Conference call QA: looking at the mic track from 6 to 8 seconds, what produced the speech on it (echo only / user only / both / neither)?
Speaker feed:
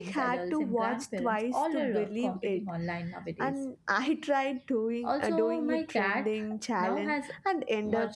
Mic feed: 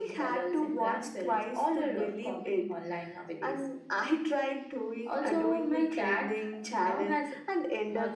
echo only